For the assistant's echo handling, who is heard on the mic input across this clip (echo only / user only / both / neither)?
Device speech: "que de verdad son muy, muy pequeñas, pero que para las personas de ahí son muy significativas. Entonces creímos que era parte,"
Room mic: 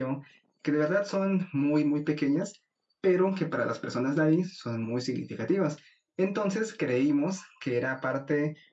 echo only